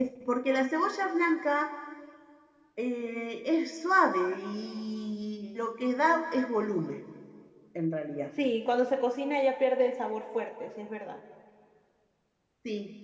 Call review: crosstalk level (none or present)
none